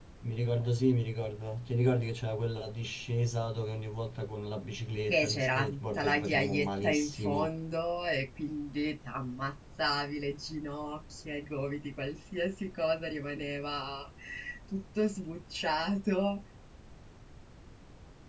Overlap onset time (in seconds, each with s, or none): 5.1 s